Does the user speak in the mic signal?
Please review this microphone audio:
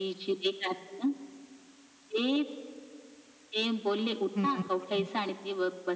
Yes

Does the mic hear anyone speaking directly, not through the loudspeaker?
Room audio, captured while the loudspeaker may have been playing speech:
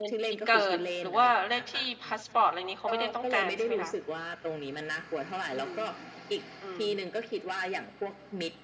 Yes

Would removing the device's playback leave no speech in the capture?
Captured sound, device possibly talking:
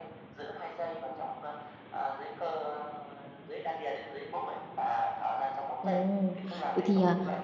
No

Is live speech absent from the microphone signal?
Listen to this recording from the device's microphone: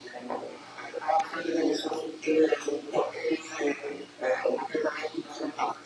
Yes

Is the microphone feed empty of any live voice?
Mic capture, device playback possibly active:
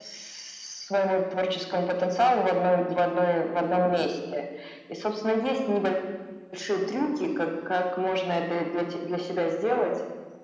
Yes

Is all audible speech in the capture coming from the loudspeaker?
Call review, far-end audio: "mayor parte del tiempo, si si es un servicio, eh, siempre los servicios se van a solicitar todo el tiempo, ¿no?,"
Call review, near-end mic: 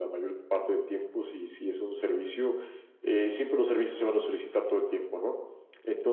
Yes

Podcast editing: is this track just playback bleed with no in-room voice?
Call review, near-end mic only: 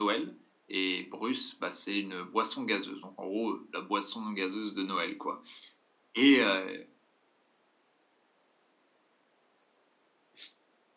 Yes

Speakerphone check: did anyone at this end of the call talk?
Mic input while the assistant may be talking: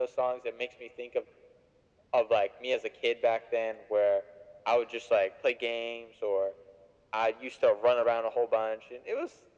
No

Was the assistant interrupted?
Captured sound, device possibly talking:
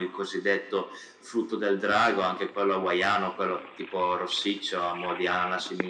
No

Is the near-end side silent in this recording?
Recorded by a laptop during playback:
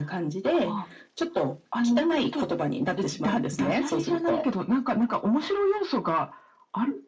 Yes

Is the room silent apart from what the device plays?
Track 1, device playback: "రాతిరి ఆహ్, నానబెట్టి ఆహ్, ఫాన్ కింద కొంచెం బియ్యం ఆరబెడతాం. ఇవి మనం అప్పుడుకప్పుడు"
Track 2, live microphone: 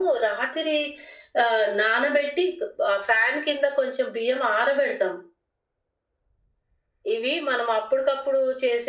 Yes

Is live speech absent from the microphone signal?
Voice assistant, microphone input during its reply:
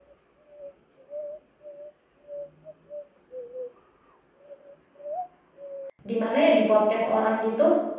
No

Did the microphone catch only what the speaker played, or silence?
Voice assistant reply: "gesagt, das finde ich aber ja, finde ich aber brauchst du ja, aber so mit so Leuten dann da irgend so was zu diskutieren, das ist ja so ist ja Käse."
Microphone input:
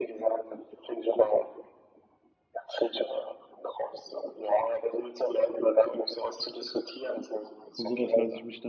No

